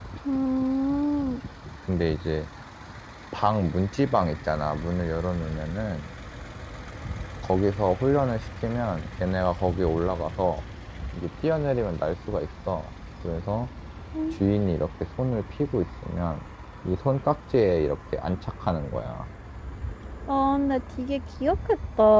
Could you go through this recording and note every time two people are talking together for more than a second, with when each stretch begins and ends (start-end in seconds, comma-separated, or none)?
none